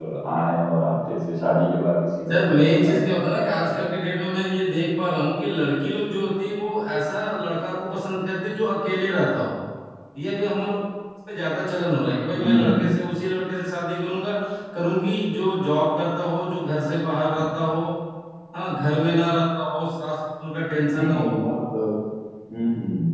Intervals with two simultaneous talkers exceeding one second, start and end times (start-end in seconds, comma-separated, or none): 2.3-3.9